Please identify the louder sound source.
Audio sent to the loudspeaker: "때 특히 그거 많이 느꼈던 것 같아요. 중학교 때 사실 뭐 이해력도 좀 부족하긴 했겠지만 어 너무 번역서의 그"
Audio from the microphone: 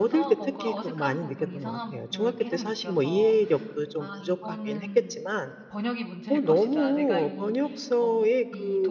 echo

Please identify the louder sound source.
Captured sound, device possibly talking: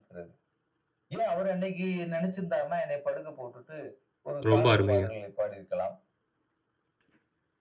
user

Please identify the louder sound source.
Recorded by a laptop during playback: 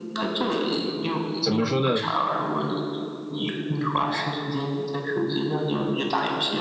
user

